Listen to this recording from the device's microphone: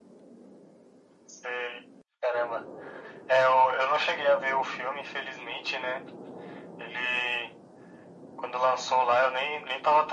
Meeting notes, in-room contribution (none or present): none